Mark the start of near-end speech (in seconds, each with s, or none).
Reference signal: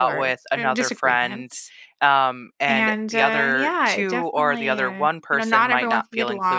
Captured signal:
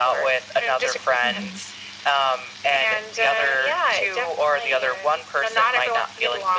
1.2 s